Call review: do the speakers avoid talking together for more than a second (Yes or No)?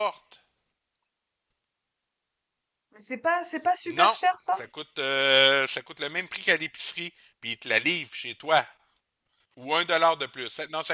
Yes